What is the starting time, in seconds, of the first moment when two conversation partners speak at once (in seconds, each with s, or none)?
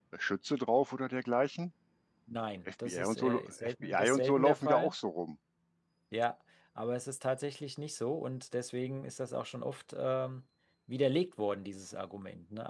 2.9 s